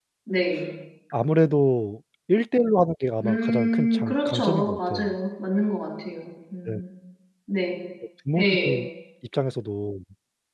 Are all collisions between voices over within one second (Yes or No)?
No